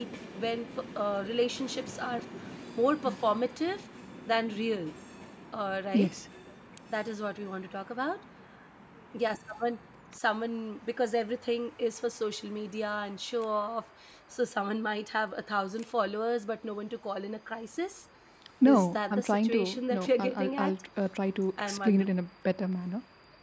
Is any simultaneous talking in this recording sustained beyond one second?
Yes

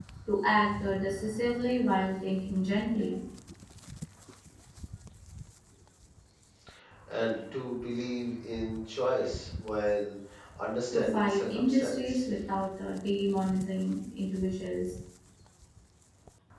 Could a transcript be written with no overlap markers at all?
No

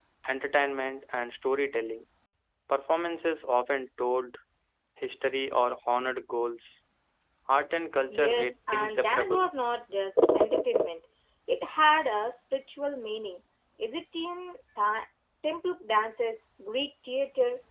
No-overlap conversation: No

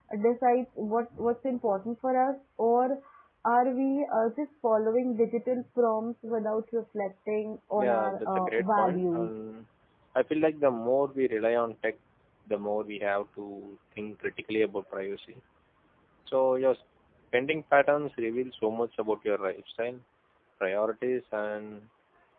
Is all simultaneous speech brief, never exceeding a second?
No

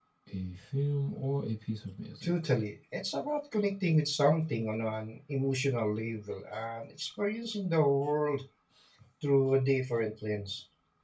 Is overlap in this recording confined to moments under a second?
Yes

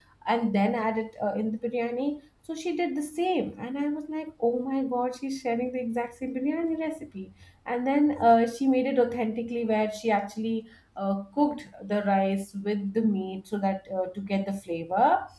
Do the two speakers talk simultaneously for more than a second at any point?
No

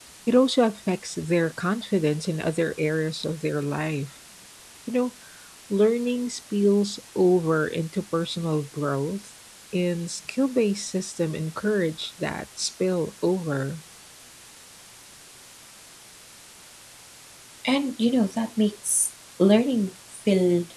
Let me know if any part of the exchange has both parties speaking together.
No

